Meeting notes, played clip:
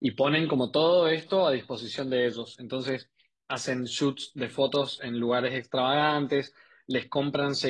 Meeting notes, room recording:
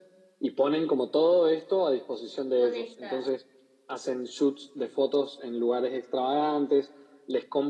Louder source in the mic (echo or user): echo